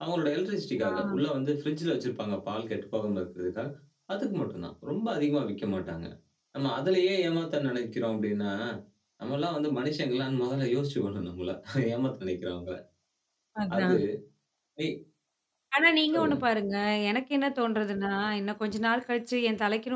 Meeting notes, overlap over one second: none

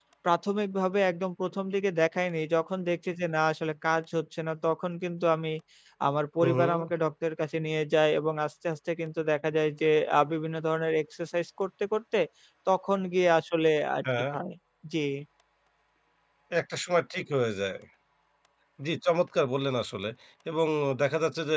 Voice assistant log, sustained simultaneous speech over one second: none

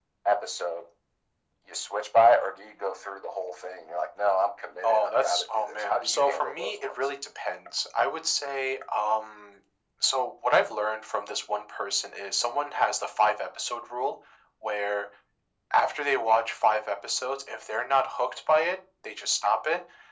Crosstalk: present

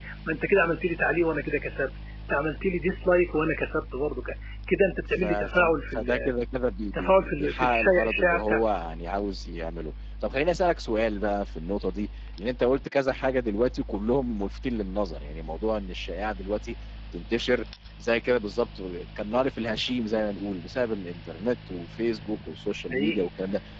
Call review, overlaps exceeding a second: present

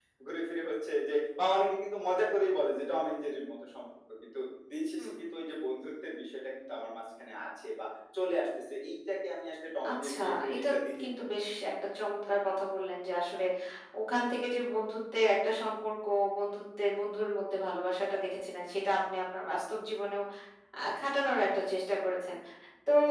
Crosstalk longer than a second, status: present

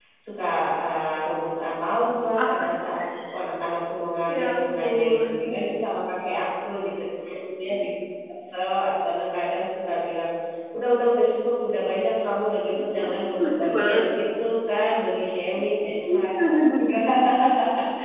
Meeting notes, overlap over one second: present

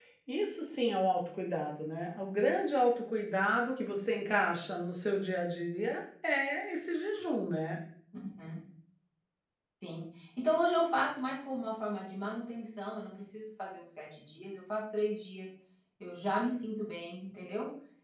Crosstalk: none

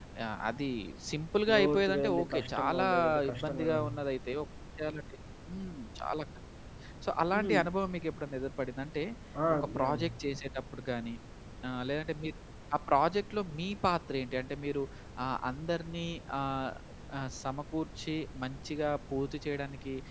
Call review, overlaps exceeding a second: present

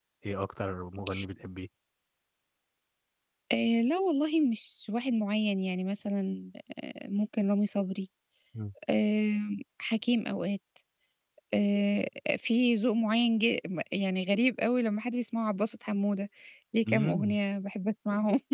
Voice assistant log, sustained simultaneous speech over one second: none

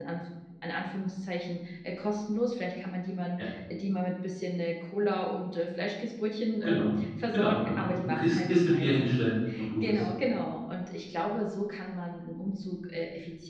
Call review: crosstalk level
present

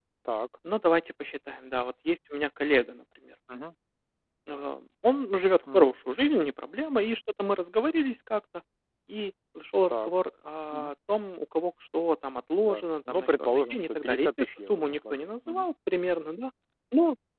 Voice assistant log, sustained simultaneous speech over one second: present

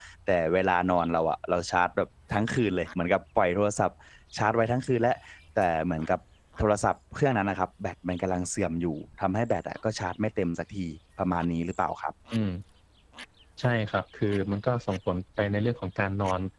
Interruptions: none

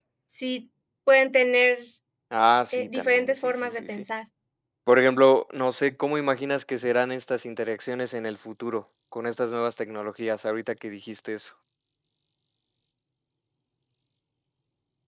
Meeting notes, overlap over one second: present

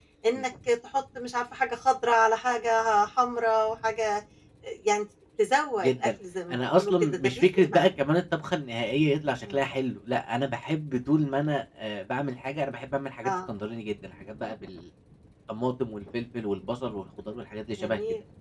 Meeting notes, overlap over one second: present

